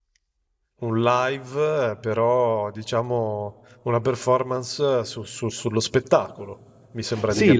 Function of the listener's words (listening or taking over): taking over